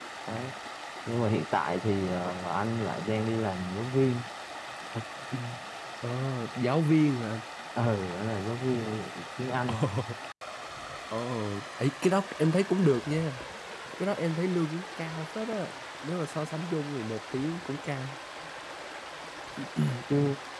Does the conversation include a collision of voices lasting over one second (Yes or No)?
No